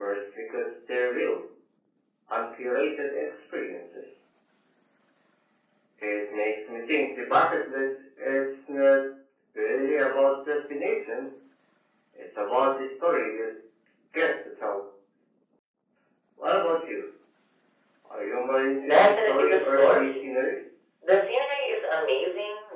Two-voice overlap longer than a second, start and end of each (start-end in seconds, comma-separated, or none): 18.9-20.2